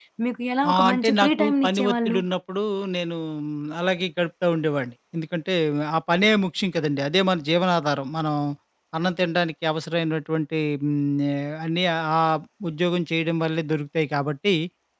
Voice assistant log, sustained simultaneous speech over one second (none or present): present